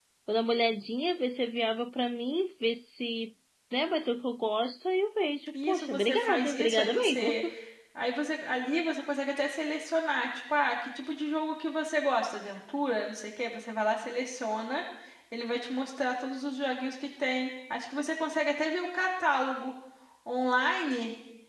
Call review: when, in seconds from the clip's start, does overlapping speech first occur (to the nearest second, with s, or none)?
6 s